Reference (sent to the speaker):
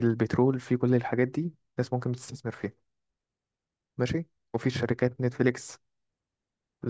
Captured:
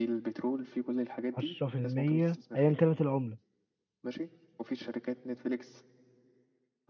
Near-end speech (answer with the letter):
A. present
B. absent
A